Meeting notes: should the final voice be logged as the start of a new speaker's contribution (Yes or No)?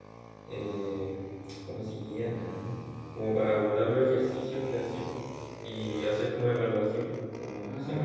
Yes